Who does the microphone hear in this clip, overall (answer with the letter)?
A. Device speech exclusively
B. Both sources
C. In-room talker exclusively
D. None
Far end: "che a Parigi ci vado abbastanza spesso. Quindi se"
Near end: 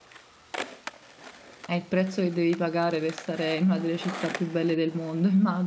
C